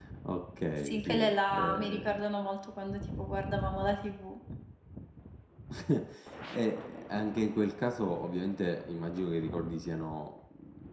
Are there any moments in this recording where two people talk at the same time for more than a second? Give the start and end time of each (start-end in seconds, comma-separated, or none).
0.8-2.2